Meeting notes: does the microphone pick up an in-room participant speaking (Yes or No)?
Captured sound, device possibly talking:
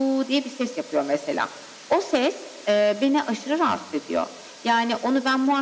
No